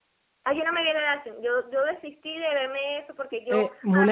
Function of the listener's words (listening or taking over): taking over